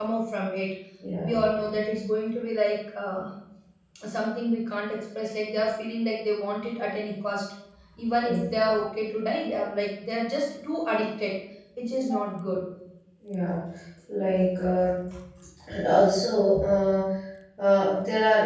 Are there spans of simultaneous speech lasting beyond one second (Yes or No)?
No